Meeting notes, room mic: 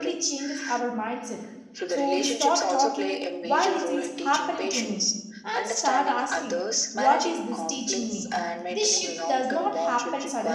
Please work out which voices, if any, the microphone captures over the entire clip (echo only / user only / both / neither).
both